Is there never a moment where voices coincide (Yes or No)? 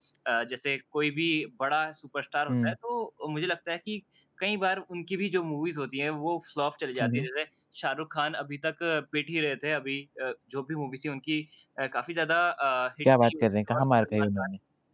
No